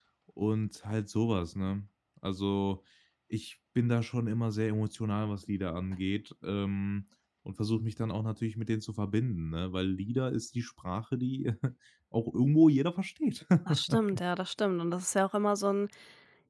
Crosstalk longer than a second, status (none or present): none